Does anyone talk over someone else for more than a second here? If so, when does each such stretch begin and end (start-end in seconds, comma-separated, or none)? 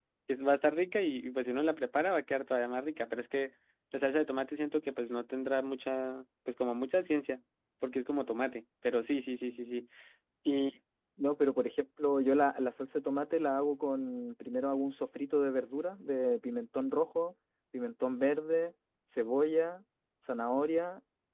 none